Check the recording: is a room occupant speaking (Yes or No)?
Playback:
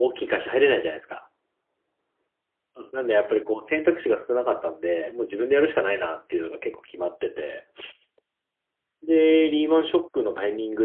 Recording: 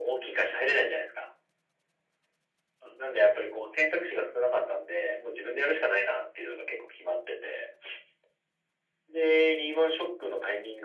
No